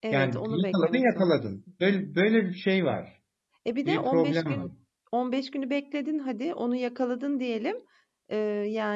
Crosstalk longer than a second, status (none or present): present